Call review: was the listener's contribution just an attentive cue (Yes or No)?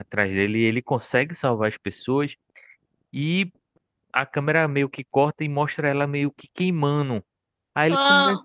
Yes